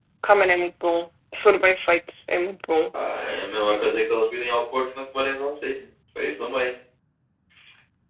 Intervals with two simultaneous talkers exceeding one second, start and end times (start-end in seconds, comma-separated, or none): none